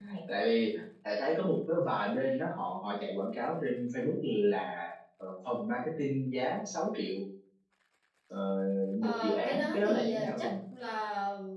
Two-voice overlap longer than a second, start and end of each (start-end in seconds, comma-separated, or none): 9.0-10.5